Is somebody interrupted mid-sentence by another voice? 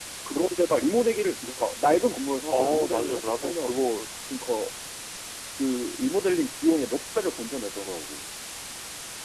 Yes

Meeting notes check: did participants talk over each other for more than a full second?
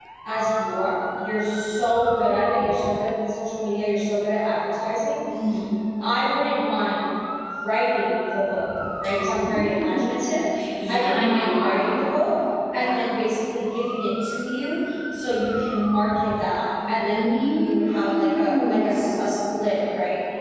Yes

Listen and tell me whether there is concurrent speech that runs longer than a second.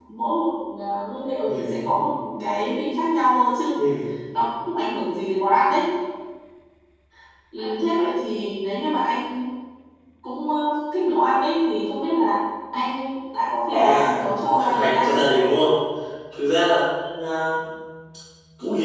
Yes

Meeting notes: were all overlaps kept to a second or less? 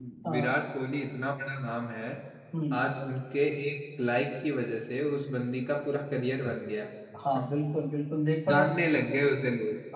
Yes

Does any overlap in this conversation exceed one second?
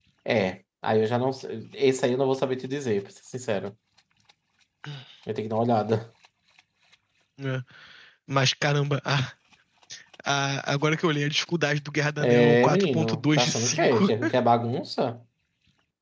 Yes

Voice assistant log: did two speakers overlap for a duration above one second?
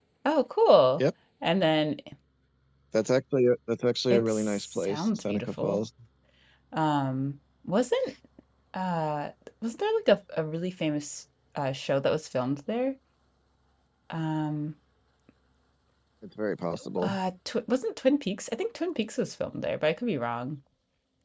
Yes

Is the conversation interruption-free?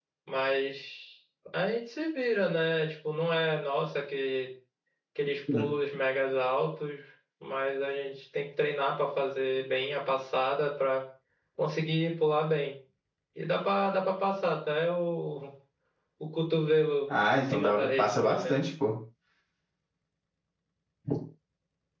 No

